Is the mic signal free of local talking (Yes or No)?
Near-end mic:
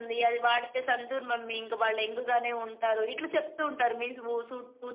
Yes